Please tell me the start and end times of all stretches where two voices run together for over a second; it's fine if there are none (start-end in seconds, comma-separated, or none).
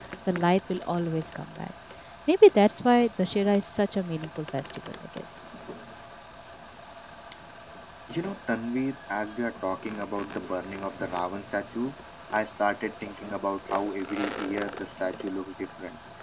none